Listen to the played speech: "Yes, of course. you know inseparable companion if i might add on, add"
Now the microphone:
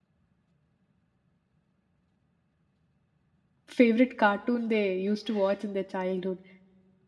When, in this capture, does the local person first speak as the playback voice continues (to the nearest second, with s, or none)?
4 s